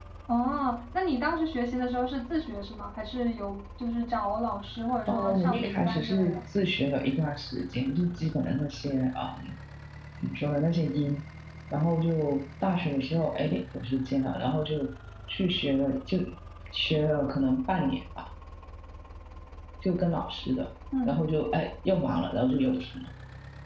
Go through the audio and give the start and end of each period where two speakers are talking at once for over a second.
5.1-6.4

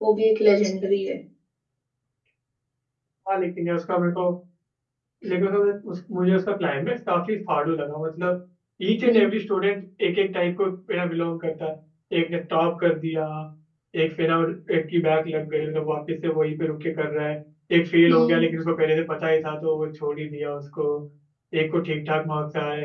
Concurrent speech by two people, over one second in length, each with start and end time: none

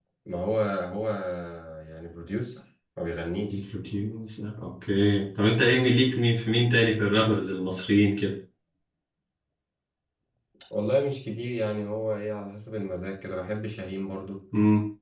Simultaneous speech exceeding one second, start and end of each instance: none

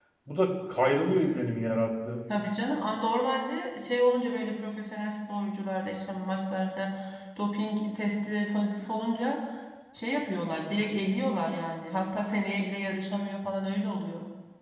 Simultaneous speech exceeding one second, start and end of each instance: none

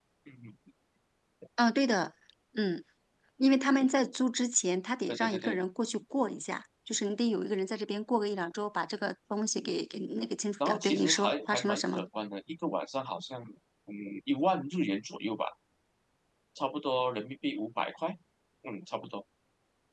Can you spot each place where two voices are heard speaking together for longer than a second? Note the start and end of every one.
10.6-12.1

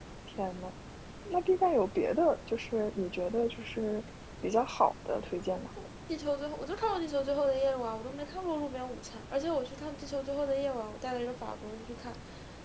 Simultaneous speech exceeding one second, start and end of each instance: none

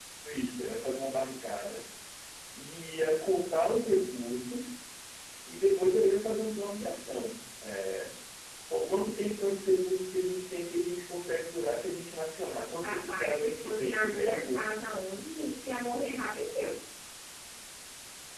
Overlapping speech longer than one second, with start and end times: 12.8-14.6

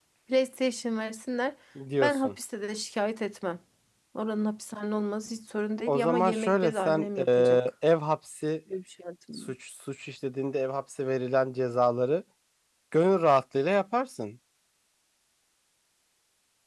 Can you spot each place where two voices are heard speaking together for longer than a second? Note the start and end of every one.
5.9-7.6

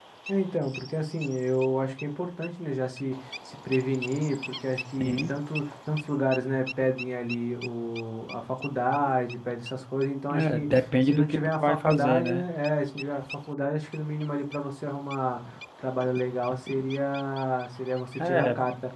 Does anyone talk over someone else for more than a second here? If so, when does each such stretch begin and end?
10.3-12.4

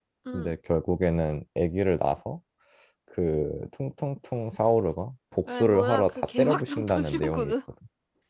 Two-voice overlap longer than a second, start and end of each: 5.4-7.5

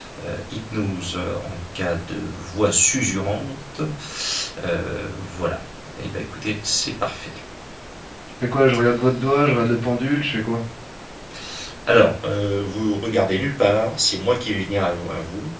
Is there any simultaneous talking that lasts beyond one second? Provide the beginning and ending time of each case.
none

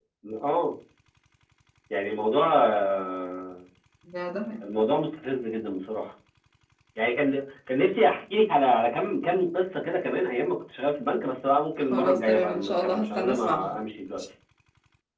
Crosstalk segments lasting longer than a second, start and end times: 11.8-13.7

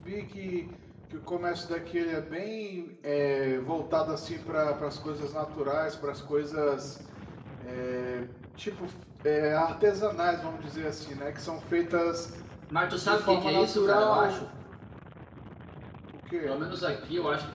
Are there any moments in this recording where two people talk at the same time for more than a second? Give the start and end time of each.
13.0-14.5

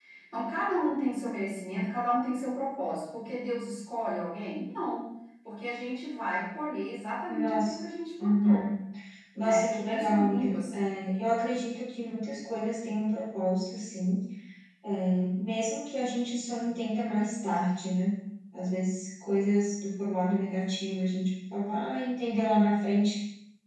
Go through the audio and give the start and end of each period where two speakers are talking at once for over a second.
9.4-10.8

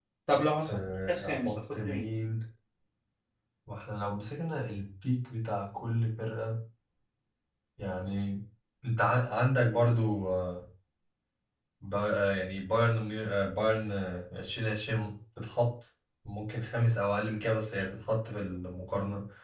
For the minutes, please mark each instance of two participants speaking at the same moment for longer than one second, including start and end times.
0.7-2.0

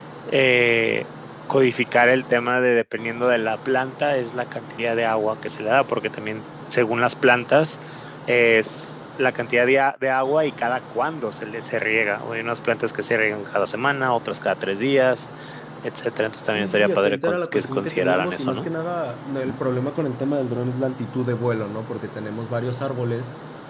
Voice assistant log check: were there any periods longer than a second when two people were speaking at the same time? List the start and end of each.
16.5-18.7

